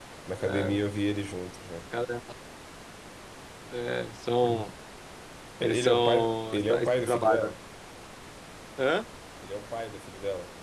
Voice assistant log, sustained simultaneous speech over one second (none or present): present